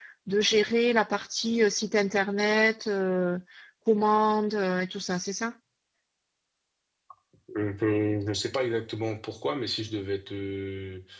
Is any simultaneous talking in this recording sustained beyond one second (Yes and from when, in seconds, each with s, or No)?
No